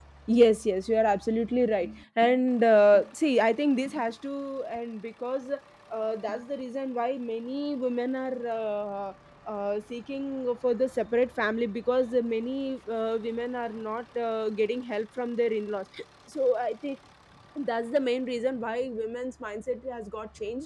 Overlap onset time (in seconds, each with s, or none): none